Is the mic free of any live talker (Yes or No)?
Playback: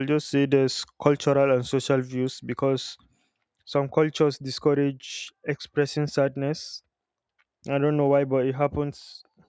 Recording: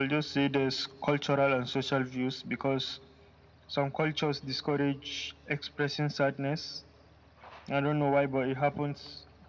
Yes